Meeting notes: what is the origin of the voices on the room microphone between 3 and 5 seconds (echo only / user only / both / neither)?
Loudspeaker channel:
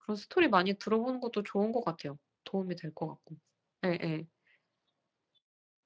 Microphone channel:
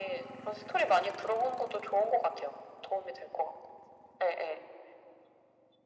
echo only